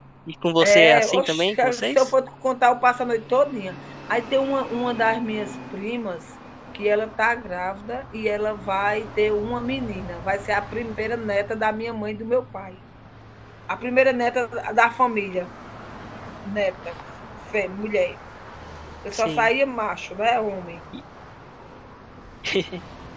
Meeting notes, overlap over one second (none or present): present